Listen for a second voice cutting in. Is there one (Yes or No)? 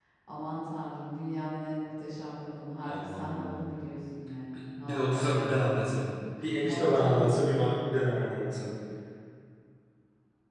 Yes